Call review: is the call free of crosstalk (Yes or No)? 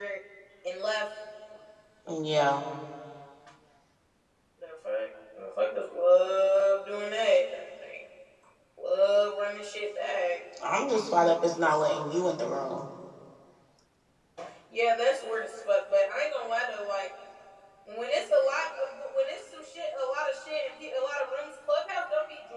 Yes